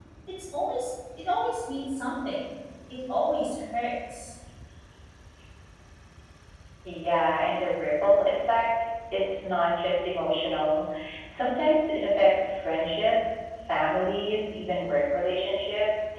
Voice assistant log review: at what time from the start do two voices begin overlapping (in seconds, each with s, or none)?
none